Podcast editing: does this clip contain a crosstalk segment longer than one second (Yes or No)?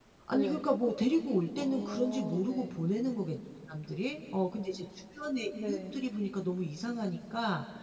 Yes